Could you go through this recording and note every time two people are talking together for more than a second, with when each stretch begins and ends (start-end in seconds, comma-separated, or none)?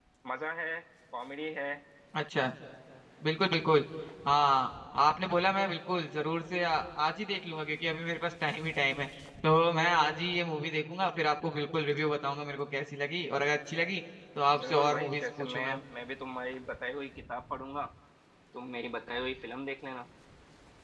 14.6-15.8